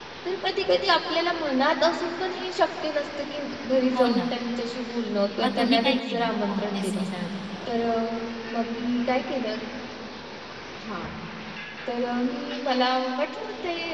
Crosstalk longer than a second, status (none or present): present